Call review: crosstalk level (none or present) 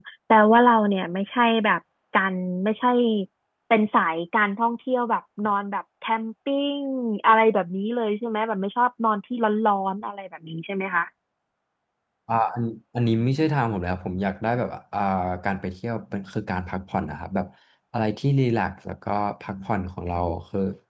none